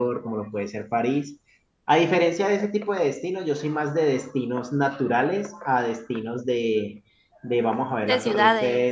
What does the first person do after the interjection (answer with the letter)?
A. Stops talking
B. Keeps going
B